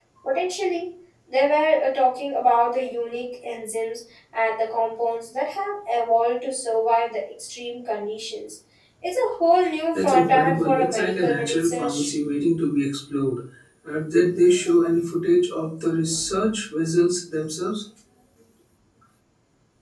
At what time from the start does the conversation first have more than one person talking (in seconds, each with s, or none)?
9.9 s